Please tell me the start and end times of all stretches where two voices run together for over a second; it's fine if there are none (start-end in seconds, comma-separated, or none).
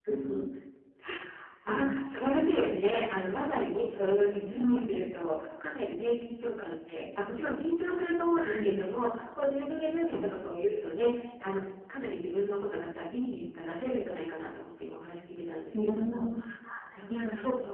none